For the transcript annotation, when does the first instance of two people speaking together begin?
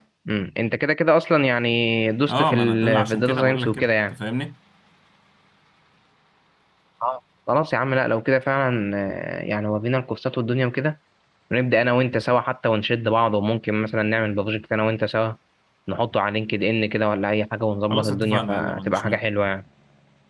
2 s

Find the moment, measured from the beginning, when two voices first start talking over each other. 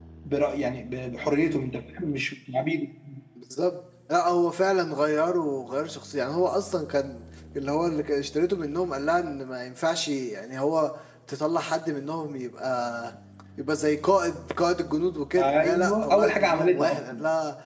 15 s

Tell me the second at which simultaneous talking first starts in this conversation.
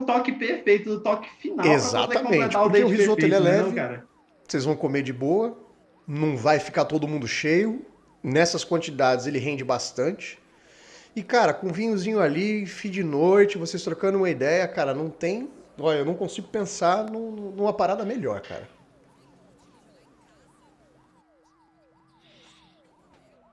2 s

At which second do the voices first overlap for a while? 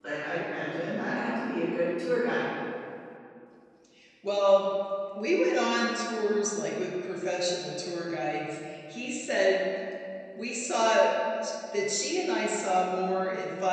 none

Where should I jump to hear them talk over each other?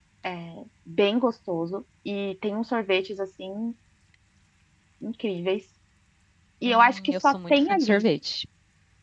7 s

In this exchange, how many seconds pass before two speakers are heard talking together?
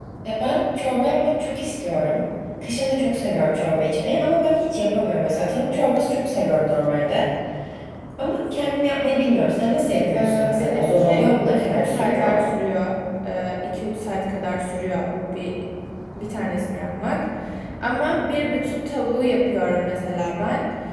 10 s

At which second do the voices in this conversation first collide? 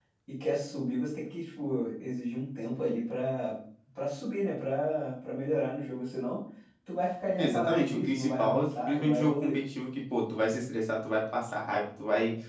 7 s

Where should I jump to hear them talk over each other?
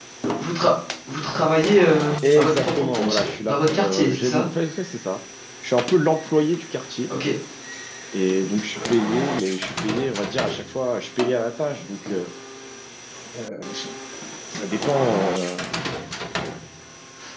2 s

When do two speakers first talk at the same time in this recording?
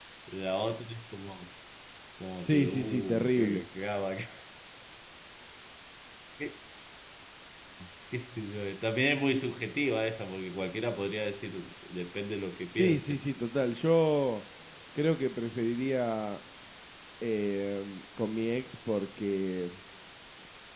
2 s

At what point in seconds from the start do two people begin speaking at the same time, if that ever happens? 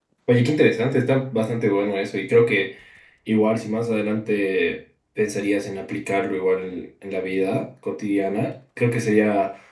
none

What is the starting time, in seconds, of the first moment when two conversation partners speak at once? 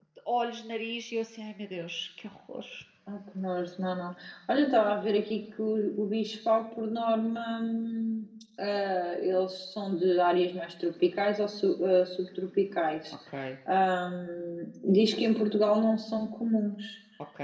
none

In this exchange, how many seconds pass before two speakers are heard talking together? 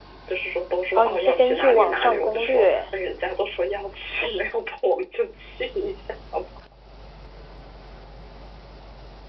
1 s

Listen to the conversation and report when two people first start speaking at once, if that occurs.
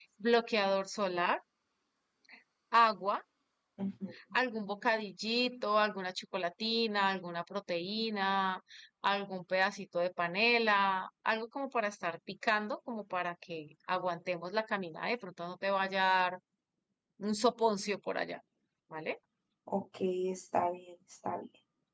none

